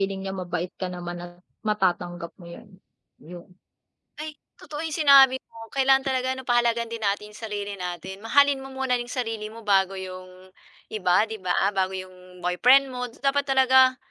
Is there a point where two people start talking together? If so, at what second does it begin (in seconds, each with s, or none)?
none